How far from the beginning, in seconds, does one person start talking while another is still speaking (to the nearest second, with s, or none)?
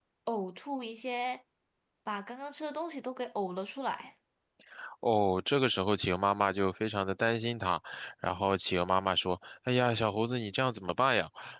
none